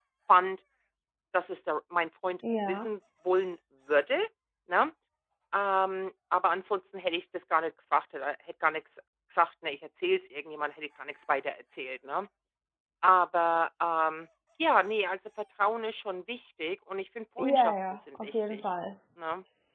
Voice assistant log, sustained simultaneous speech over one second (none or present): present